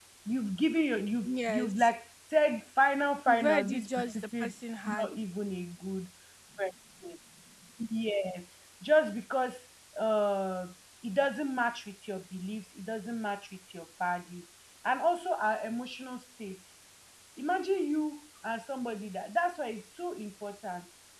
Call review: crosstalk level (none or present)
present